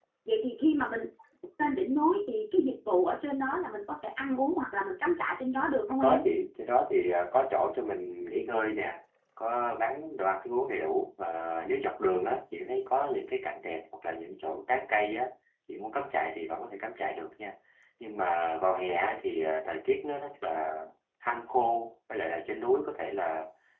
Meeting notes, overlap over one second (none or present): none